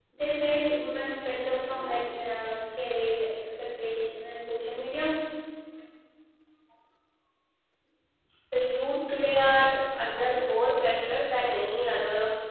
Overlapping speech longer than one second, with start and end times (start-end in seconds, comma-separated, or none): none